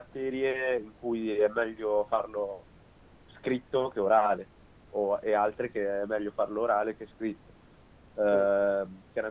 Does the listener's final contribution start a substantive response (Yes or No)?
No